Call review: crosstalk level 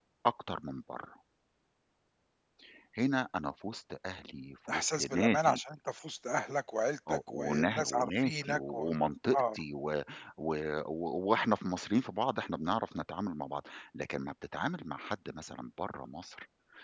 present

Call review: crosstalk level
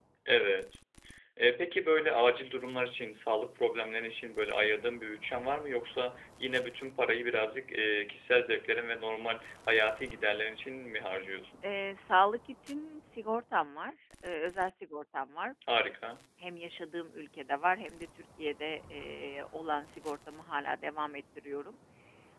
none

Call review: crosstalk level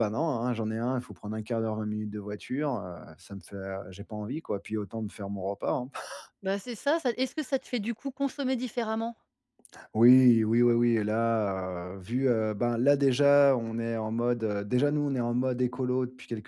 none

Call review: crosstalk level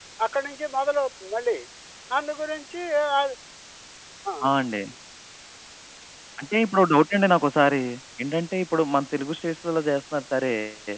none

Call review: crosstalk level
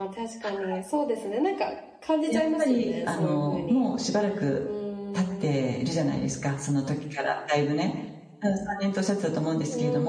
present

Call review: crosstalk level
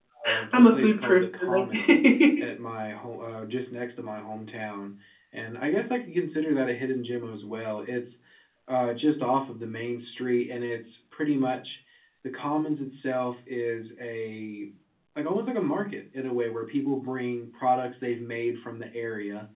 present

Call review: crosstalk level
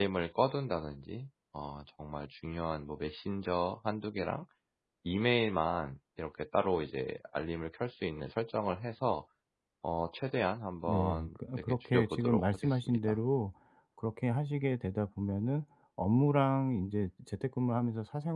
present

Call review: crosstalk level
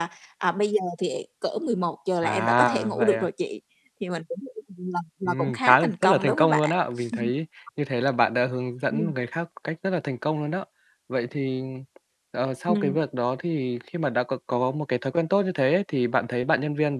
present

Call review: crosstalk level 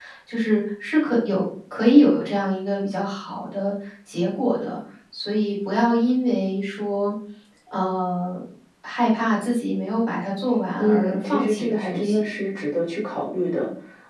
present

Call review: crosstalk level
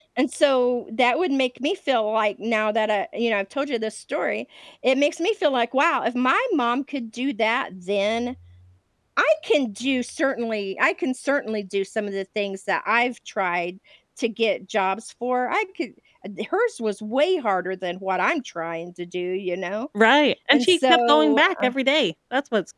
present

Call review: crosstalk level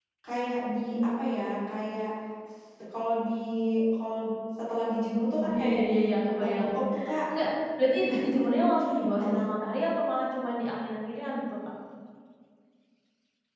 present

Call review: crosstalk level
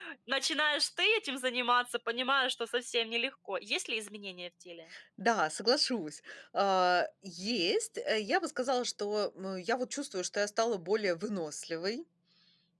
none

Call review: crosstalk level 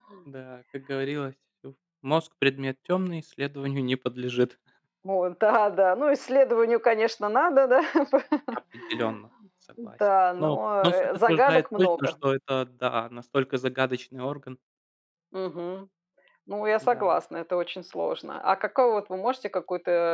present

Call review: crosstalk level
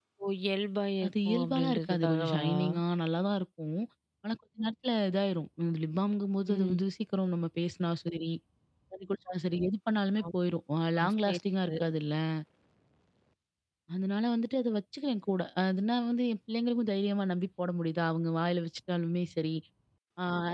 present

